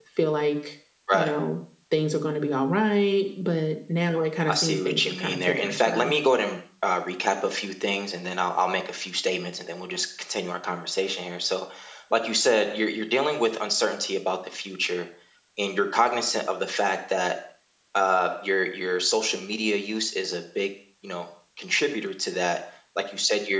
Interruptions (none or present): present